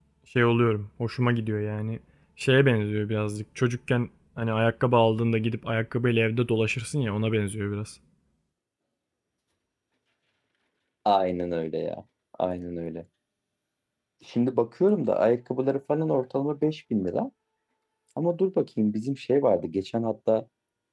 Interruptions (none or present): none